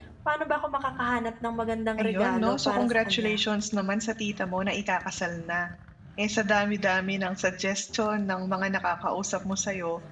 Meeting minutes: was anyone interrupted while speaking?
Yes, from 2.0 s

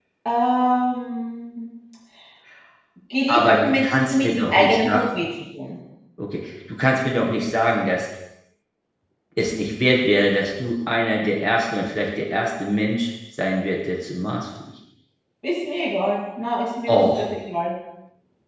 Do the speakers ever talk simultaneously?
Yes, from 3.3 s

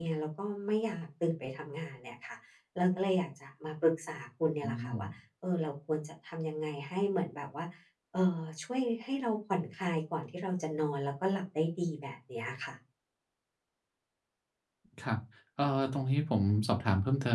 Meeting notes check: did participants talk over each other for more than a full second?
No

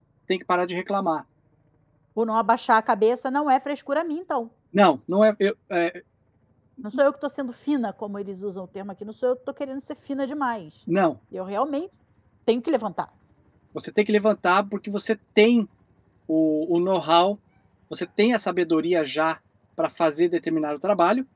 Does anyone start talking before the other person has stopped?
No

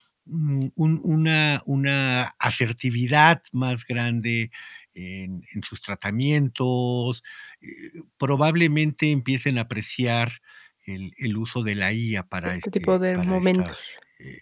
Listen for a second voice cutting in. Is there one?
Yes, from 12.6 s

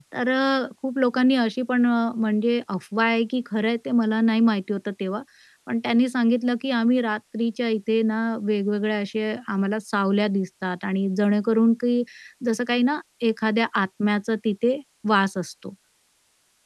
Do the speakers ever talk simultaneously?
No

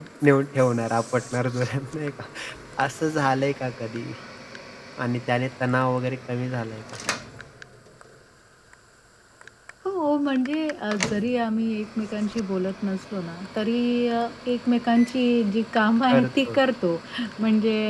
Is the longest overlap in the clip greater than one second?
No

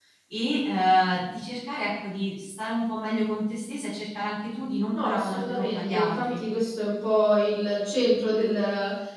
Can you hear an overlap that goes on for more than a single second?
Yes, from 4.9 s

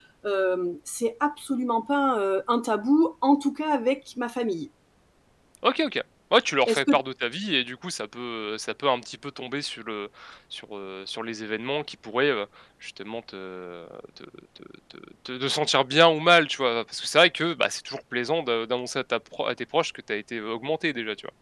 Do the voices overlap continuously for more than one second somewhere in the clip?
No

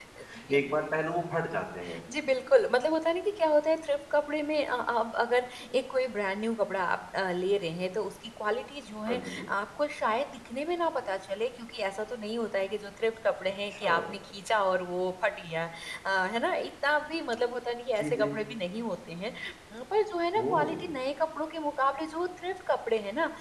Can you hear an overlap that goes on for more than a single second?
No

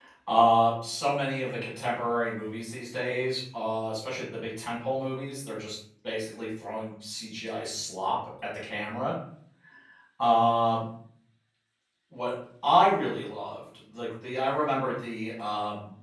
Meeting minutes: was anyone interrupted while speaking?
No

